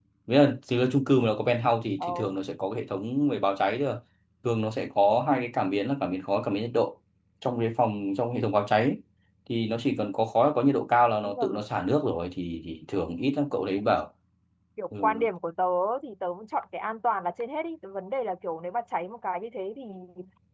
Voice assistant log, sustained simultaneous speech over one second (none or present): none